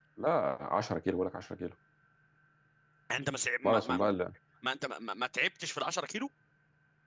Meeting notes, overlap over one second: none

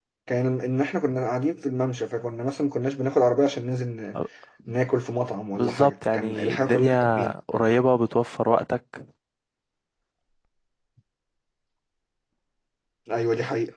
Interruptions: present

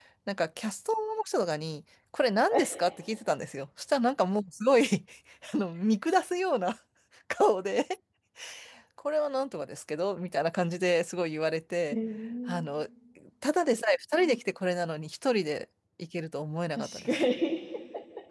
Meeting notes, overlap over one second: none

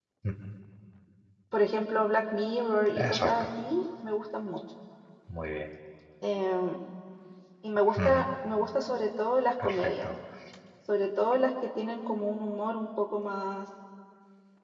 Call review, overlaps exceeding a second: none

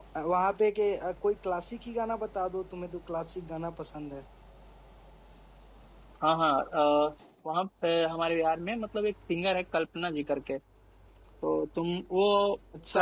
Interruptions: none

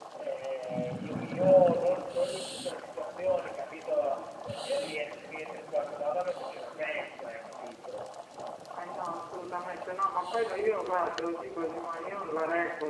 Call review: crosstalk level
none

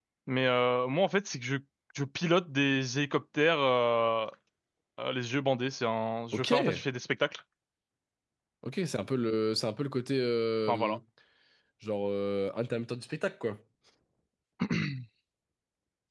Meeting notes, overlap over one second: none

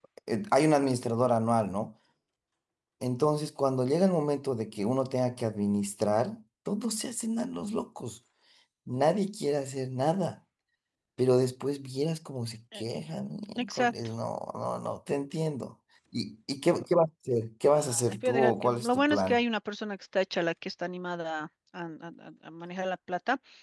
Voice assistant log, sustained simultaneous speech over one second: present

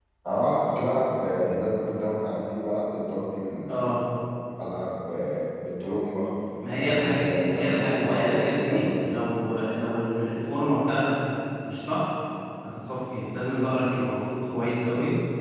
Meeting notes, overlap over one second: present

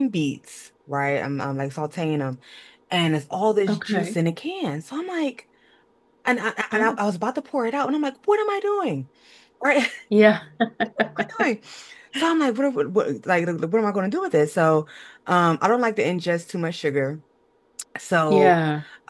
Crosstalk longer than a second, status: none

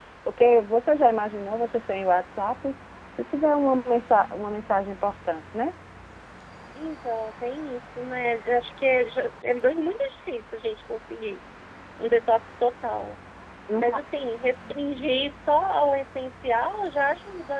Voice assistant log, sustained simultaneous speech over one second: none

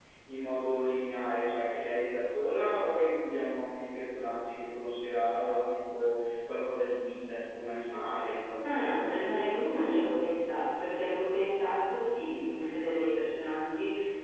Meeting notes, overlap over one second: none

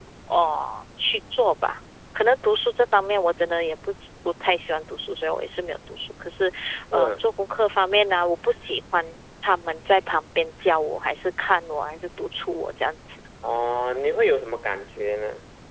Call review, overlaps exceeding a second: none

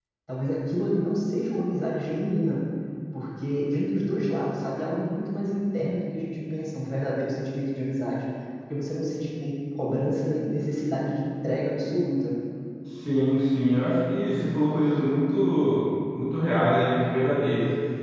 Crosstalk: none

